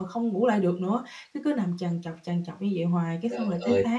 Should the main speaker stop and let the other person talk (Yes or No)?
No